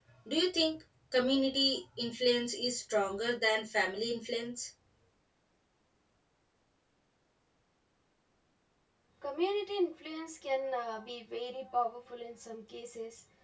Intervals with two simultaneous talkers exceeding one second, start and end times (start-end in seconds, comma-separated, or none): none